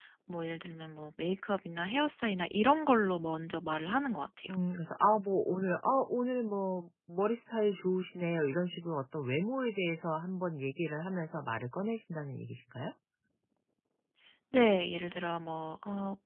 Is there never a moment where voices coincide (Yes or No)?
Yes